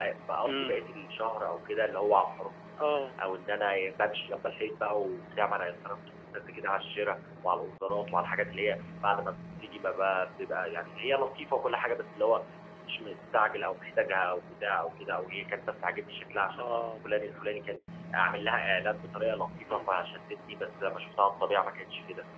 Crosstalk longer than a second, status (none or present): none